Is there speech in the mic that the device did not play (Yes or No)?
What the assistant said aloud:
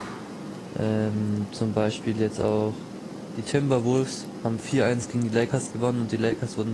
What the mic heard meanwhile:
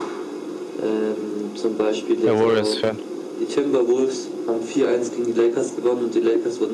Yes